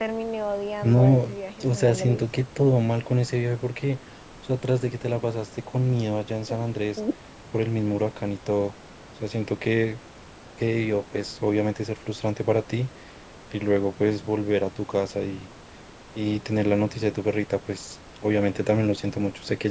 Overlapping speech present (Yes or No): Yes